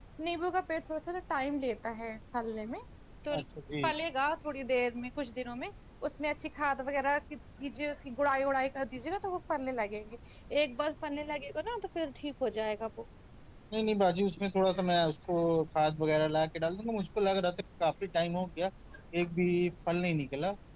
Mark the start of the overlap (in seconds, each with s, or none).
none